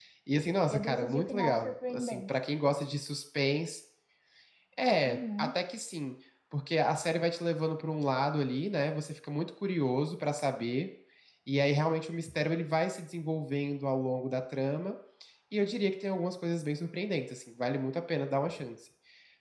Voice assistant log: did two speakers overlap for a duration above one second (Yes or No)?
Yes